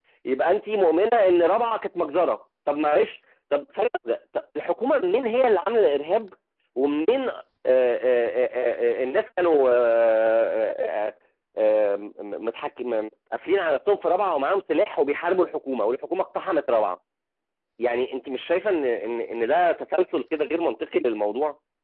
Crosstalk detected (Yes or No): No